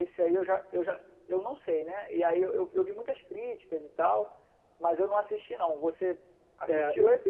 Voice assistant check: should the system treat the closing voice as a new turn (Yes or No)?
Yes